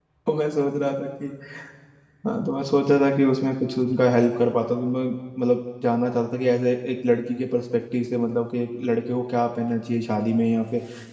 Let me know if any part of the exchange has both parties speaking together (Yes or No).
No